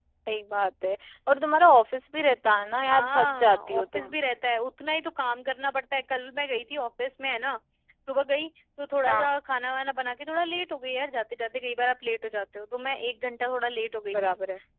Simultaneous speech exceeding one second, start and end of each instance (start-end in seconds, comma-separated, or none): 2.9-4.2